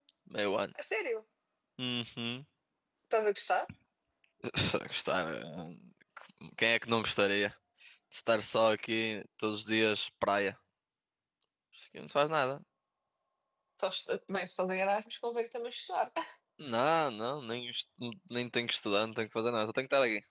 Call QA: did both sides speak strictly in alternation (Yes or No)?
Yes